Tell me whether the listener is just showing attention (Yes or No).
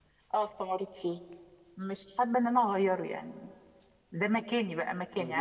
No